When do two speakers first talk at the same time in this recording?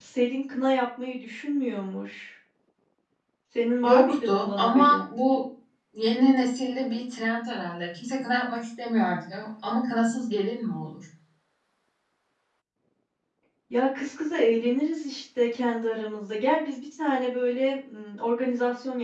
4 s

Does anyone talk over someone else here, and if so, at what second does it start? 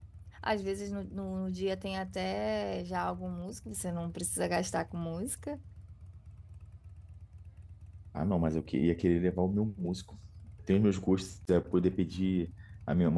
none

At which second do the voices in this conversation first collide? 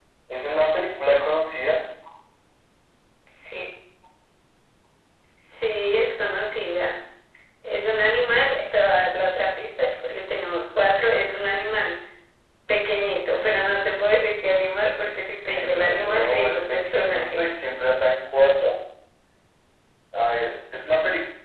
16 s

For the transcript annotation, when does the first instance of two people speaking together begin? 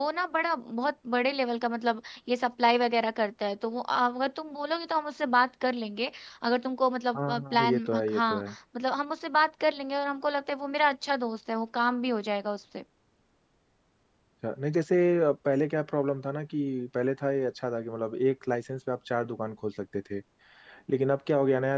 7 s

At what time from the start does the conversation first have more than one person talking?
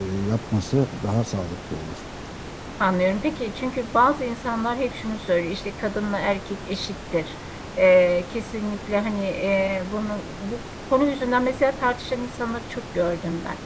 none

